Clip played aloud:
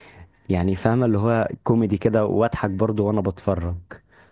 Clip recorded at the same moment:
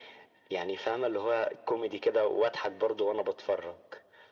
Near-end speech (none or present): none